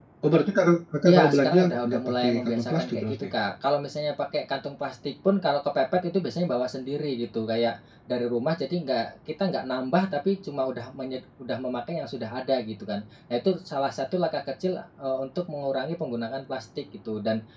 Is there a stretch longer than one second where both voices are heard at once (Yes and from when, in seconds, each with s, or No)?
Yes, from 1.1 s